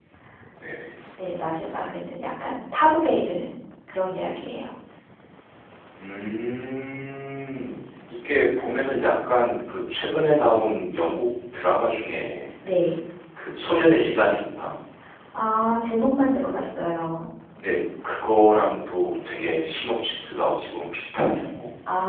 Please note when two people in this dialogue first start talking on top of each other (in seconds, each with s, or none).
none